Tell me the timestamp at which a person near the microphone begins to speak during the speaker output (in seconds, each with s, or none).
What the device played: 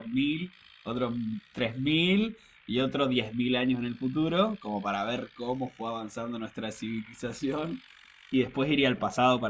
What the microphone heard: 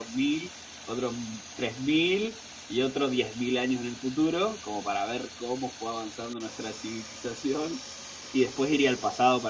none